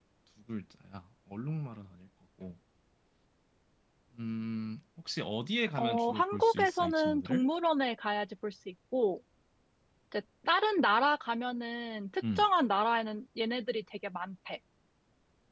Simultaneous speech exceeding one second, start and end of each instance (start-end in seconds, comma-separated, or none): 5.8-7.5